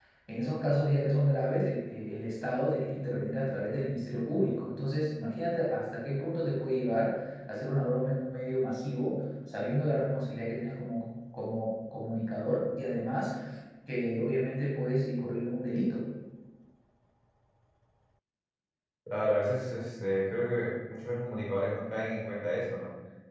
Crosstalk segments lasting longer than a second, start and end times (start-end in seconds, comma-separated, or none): none